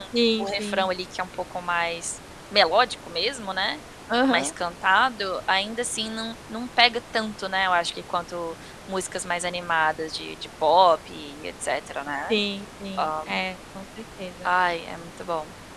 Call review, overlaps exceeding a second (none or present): none